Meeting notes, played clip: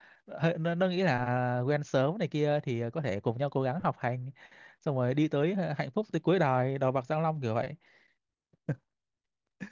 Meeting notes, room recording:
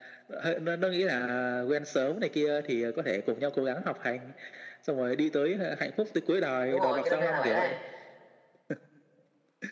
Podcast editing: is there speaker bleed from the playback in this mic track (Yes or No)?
Yes